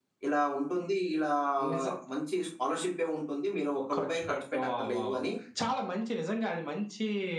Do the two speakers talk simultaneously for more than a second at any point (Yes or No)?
Yes